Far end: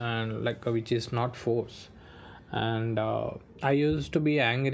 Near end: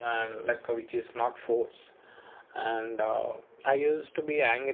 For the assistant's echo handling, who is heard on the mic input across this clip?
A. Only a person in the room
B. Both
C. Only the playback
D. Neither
C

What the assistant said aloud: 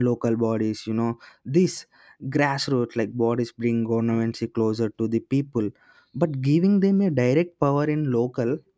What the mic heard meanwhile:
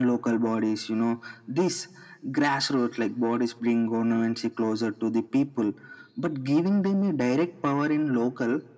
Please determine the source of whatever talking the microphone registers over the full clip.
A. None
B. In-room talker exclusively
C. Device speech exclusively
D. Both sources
C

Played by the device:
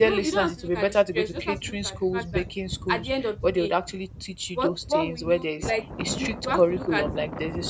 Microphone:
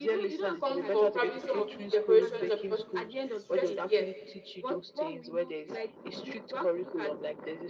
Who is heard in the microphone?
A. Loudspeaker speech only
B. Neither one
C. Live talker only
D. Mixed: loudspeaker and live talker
D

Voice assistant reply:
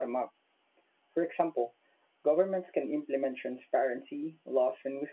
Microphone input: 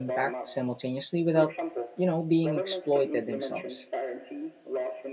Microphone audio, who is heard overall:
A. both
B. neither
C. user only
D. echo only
A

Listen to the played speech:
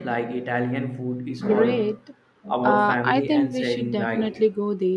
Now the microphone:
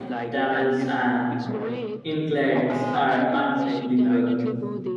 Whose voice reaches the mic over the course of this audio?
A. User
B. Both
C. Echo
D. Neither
B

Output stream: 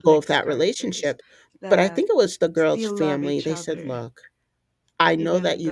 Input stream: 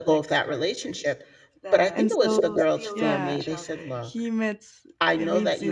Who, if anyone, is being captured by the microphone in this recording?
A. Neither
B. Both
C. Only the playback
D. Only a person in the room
B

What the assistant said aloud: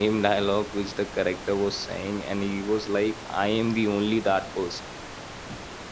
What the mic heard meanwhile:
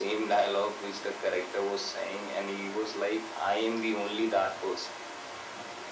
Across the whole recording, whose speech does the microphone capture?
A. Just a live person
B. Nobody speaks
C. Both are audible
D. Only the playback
D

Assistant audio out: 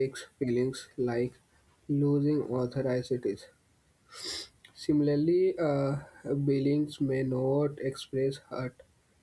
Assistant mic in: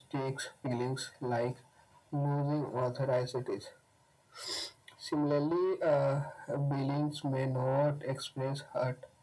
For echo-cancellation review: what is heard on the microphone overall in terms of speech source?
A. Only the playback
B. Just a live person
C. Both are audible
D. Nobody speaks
A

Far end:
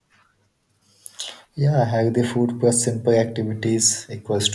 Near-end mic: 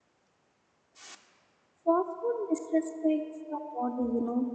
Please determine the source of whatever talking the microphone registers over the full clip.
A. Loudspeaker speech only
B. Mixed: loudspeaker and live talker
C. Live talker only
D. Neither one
C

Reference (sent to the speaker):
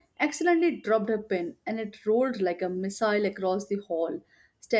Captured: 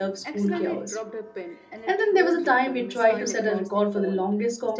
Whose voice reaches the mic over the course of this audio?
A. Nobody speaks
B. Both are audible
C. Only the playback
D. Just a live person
B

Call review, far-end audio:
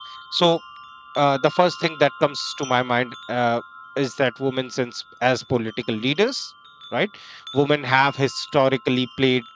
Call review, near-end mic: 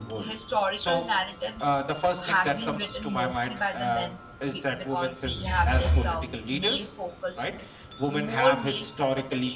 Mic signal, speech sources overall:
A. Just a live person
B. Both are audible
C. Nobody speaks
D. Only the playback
B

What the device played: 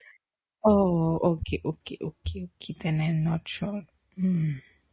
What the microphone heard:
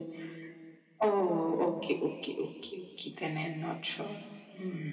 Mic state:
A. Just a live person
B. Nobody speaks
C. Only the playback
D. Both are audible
C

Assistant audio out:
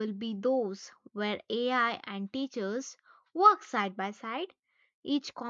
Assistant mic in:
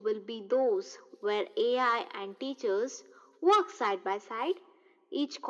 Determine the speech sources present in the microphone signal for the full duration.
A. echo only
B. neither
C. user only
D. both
A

